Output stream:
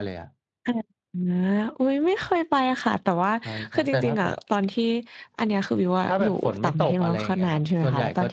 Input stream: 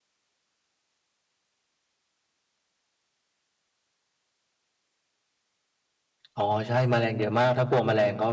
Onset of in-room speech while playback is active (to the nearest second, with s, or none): 6 s